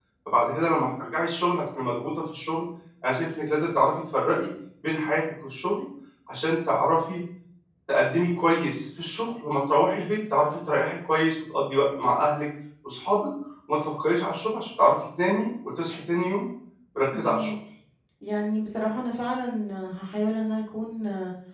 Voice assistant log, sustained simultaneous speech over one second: none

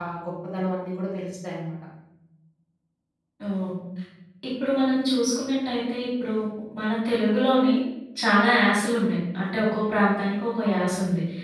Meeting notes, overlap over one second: none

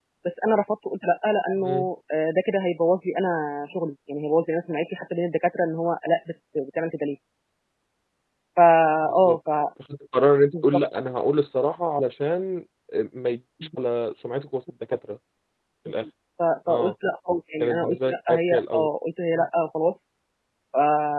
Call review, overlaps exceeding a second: present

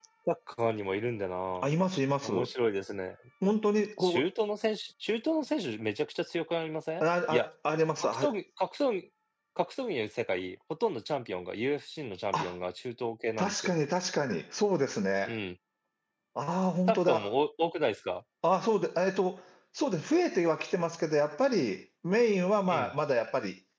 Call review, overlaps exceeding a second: none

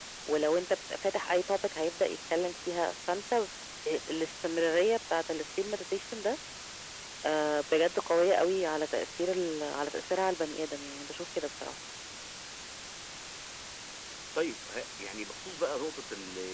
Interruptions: none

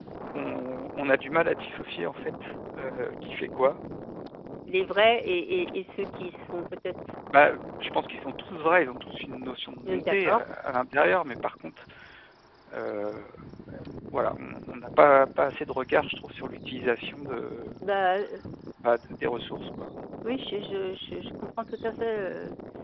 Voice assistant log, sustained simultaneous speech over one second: none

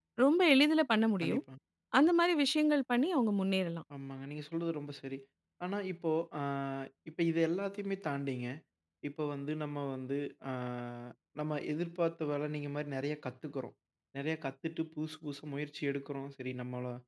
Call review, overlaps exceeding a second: none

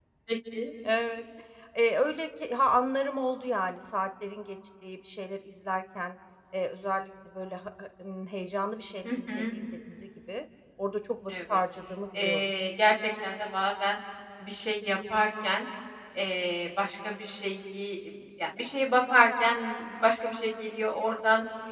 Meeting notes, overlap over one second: none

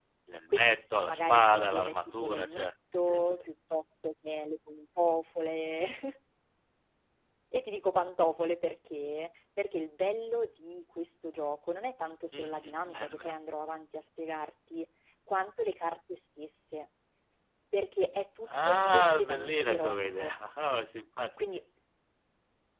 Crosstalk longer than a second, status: present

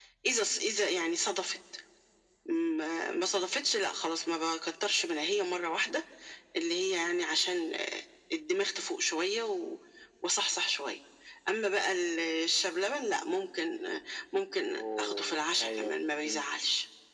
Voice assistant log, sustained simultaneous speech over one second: present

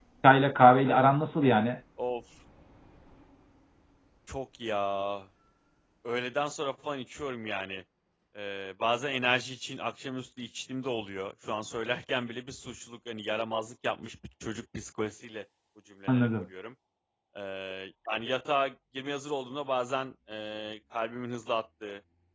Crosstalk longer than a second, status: none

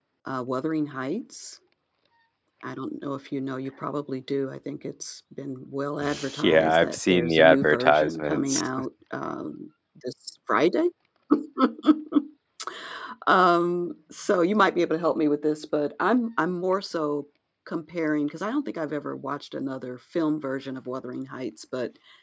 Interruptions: present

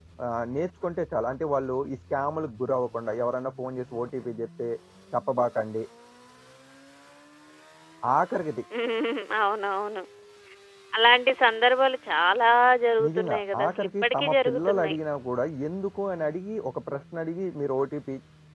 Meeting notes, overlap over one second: present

